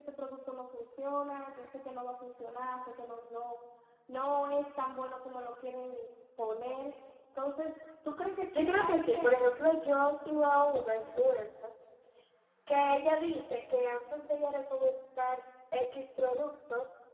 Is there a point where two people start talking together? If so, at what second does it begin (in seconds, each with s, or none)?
8.5 s